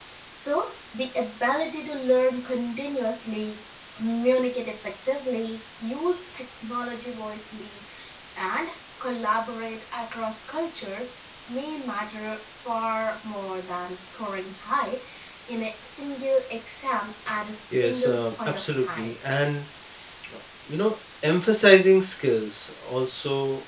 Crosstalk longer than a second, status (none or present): present